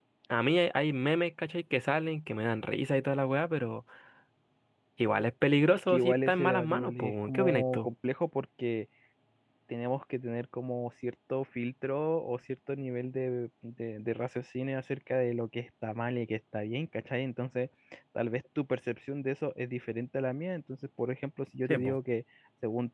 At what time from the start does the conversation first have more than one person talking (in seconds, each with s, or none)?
5.7 s